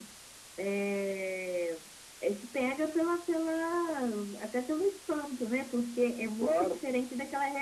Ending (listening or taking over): listening